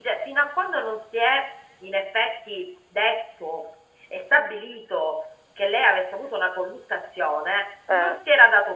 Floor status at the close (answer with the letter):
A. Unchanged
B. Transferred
A